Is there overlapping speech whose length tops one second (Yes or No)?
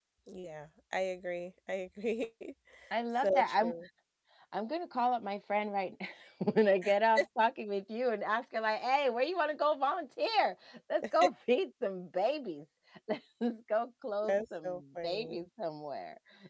Yes